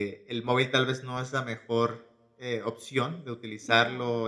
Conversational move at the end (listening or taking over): listening